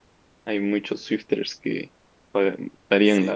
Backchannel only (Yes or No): No